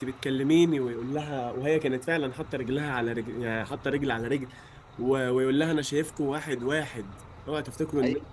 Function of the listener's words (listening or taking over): taking over